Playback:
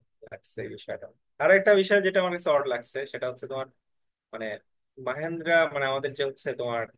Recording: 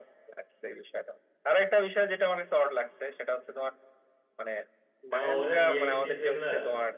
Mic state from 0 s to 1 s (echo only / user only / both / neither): echo only